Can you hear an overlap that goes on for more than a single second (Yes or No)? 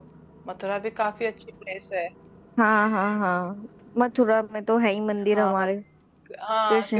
No